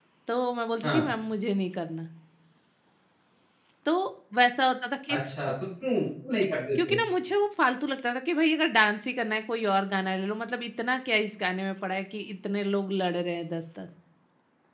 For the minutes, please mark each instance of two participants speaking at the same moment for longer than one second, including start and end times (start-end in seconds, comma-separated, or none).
none